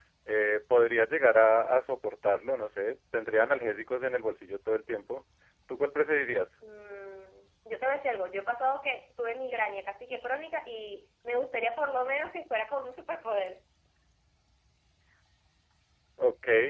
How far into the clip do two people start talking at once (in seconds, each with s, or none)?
none